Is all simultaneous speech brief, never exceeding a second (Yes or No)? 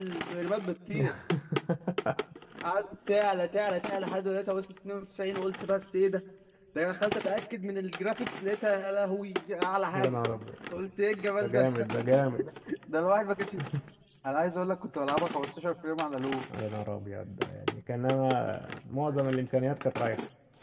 Yes